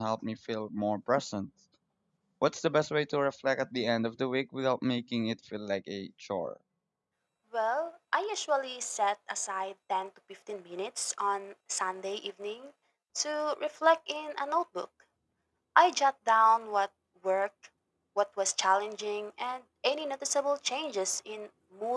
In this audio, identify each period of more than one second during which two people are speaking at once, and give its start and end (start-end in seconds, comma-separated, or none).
none